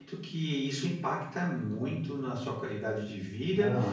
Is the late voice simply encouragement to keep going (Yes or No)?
Yes